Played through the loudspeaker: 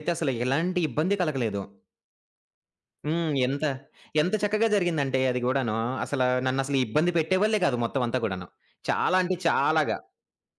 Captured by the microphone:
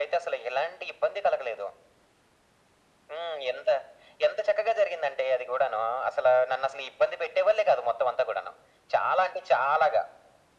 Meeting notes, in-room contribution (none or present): none